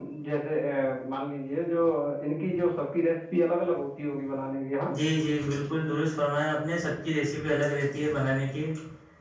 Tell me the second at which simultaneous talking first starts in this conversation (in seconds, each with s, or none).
none